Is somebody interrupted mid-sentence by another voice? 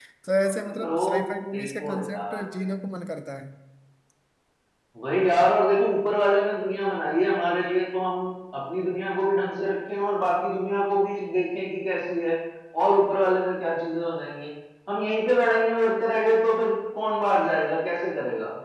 Yes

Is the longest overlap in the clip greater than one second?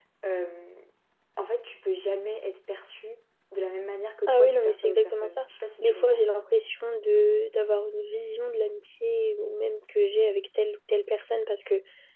Yes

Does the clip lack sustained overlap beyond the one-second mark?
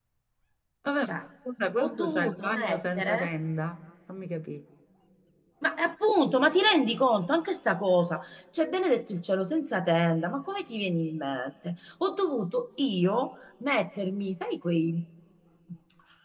No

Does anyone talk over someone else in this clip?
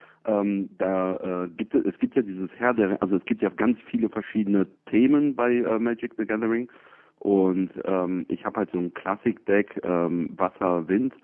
No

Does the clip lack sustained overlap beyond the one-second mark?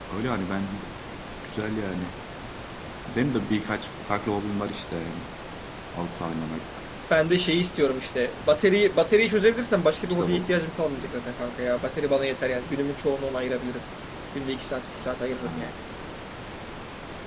Yes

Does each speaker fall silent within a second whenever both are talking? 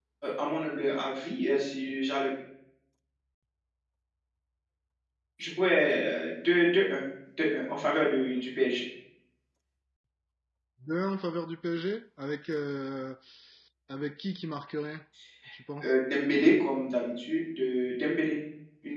Yes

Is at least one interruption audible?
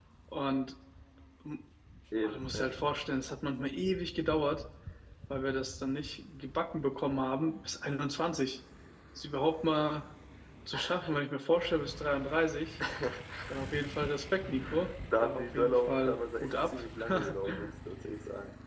Yes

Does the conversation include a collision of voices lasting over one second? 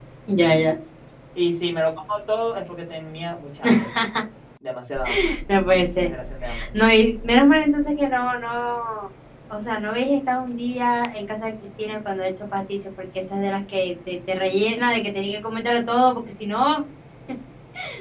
No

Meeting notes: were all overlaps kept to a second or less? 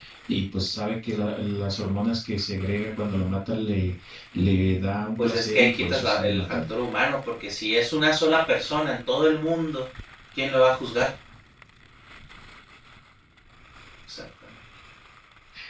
No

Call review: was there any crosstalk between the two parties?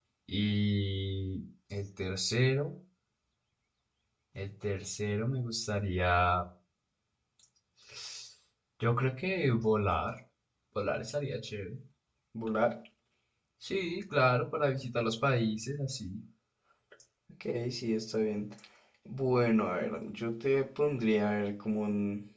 No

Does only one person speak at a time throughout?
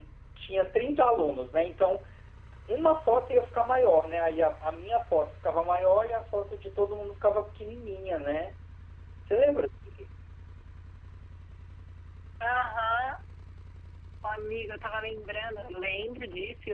Yes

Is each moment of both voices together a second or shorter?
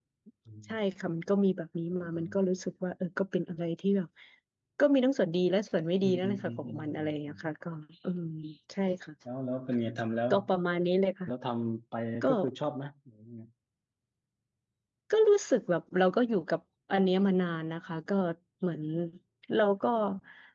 No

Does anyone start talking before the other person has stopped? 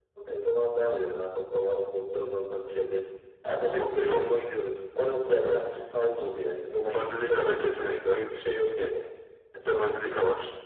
Yes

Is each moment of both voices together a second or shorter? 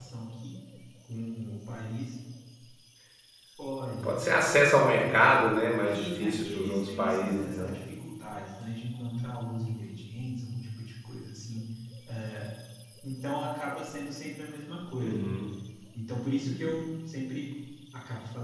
No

